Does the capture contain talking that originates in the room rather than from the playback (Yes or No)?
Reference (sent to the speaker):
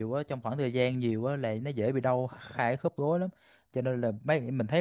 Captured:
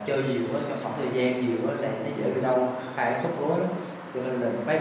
No